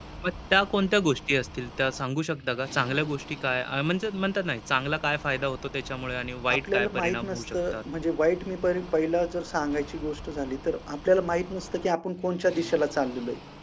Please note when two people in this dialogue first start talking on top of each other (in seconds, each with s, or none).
6.5 s